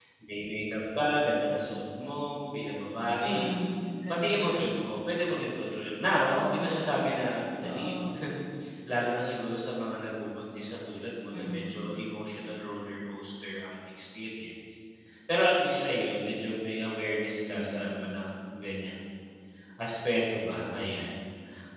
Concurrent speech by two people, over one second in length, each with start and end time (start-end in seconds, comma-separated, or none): none